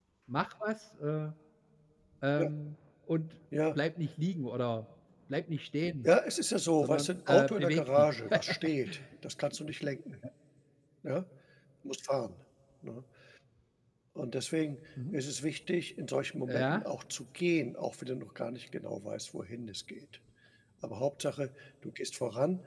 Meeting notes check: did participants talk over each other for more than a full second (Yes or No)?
Yes